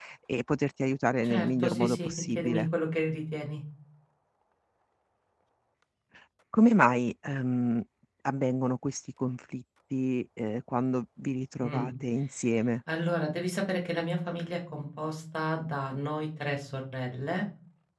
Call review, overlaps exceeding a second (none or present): present